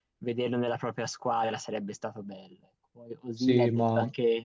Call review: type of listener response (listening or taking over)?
listening